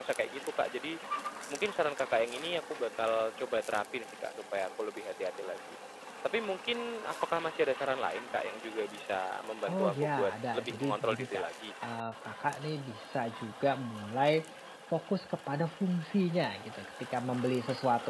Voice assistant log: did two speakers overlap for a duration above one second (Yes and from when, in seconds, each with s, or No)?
Yes, from 9.6 s